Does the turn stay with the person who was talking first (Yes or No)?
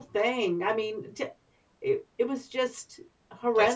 No